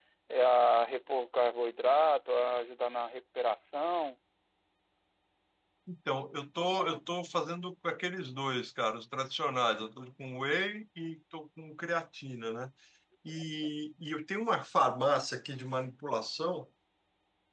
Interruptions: none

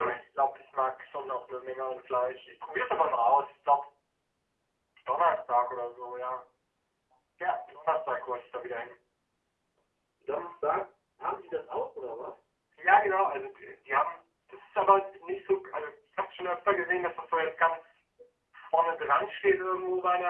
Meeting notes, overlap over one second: none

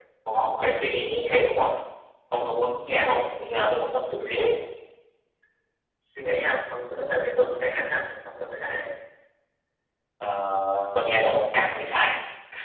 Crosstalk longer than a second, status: none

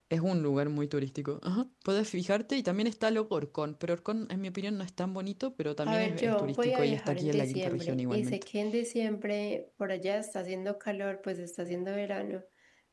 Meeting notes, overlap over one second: present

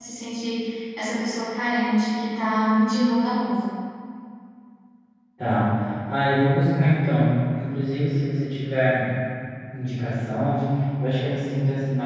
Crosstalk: none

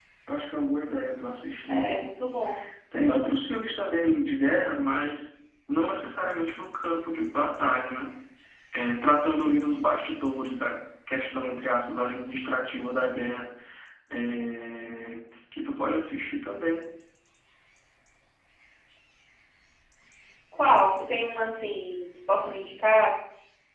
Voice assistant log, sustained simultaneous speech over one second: none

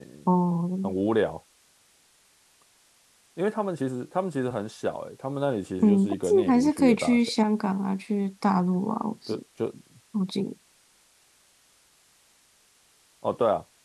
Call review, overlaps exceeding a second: present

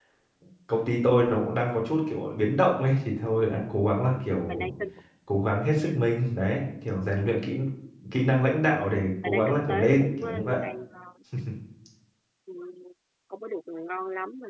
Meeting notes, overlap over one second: present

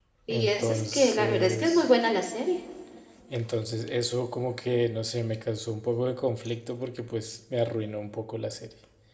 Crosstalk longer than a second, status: present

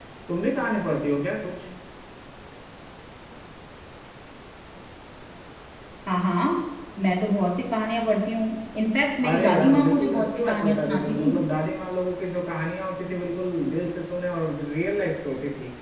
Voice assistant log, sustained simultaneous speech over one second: present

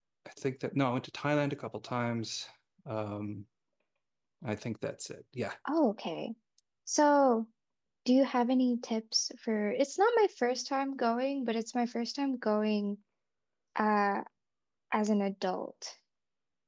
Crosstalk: none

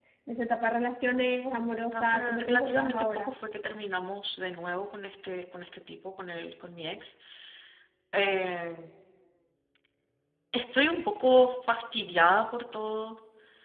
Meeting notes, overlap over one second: present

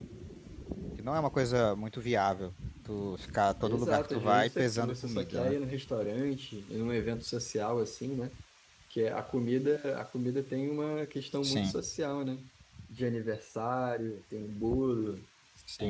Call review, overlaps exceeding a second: present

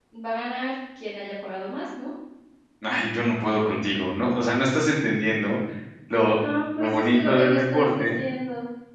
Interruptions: present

